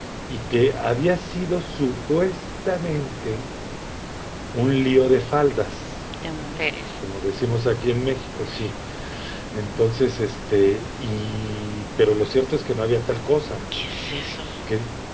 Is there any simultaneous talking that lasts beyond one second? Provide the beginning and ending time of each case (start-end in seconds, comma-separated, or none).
none